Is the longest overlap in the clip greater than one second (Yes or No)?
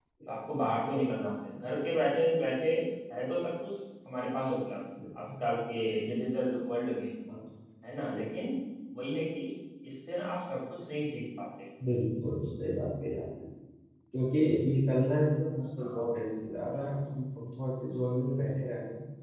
No